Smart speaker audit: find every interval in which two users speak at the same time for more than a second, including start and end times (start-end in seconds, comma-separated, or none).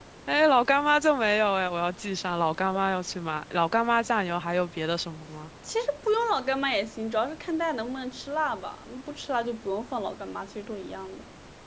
none